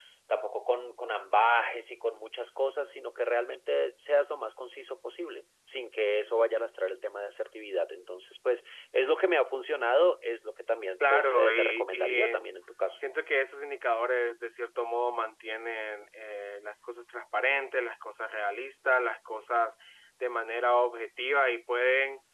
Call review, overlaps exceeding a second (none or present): present